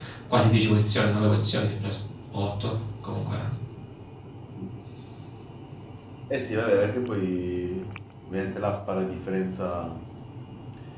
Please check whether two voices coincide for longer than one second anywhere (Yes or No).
No